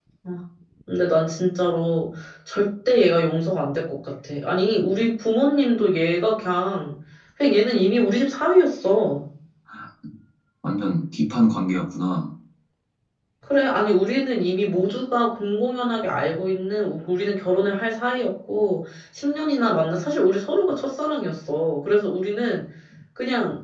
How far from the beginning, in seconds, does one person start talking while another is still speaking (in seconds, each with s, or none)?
none